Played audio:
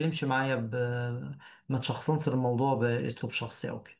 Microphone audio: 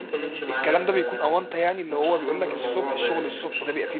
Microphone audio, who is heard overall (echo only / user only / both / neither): both